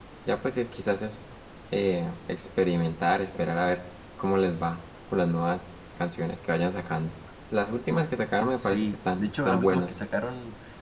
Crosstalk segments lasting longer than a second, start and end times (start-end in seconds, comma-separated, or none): 8.6-9.9